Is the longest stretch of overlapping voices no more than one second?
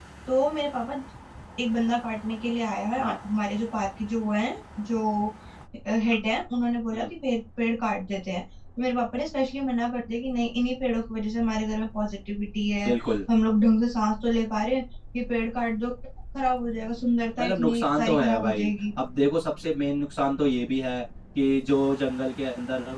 No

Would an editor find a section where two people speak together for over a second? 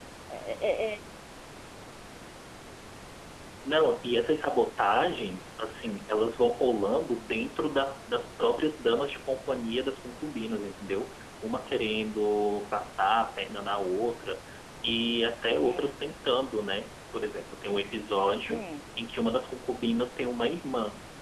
No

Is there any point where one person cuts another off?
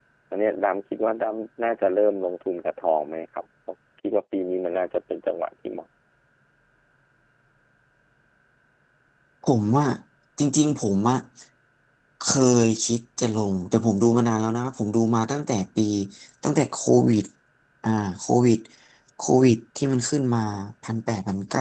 No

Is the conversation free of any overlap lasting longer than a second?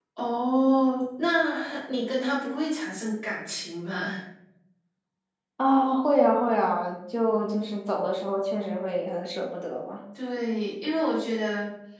Yes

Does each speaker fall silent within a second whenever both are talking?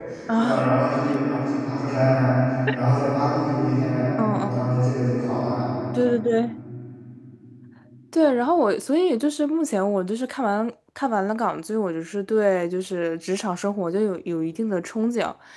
Yes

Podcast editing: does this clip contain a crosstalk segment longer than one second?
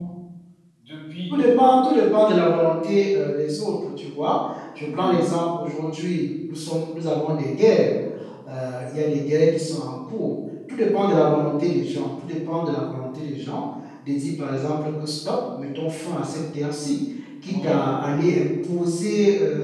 No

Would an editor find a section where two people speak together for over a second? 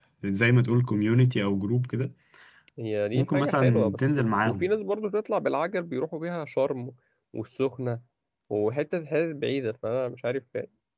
Yes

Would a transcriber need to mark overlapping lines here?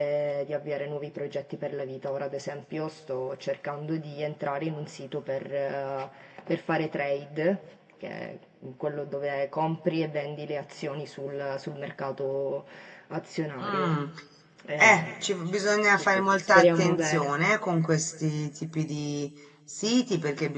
Yes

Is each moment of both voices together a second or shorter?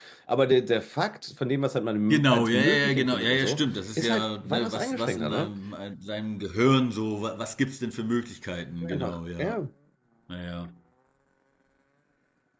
No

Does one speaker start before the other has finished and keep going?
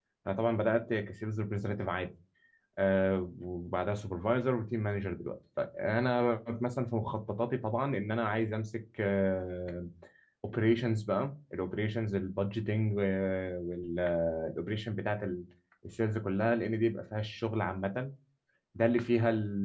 No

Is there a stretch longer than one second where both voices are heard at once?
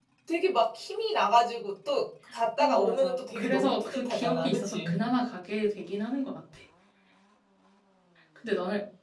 Yes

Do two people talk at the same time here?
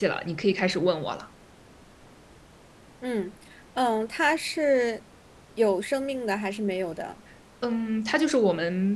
No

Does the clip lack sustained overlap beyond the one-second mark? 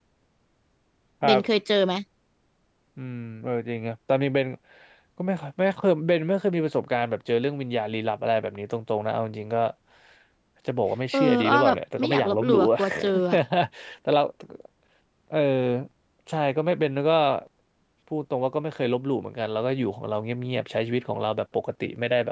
No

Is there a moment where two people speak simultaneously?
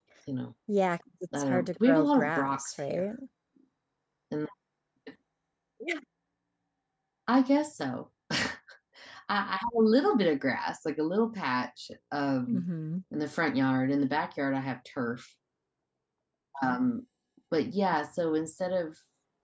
Yes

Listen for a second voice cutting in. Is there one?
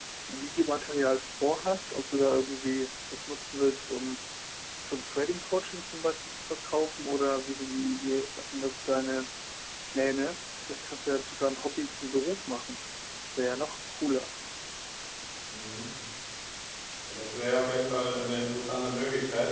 No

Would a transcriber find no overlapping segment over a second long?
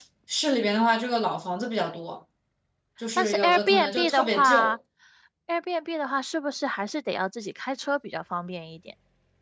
No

